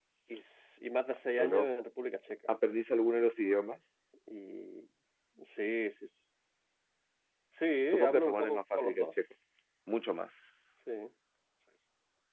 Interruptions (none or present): present